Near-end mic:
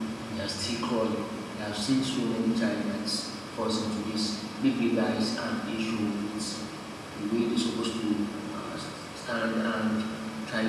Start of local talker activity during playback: none

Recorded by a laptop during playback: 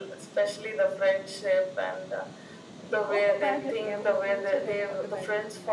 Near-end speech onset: 2.9 s

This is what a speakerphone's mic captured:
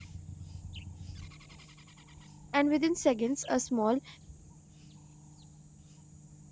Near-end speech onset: 2.5 s

